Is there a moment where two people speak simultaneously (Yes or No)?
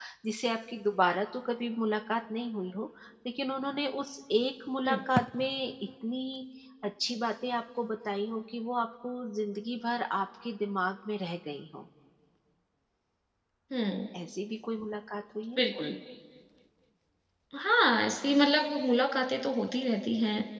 No